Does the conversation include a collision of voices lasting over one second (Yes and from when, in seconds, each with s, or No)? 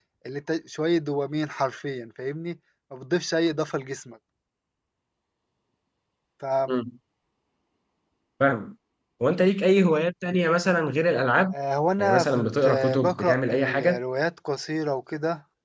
Yes, from 12.0 s